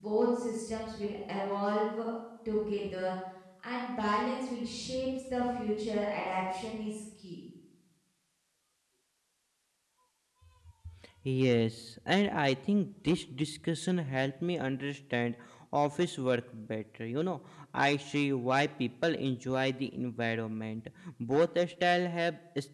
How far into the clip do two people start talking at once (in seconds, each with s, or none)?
none